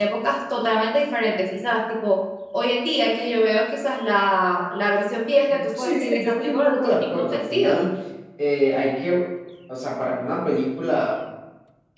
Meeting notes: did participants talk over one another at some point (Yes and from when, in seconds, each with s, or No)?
Yes, from 5.5 s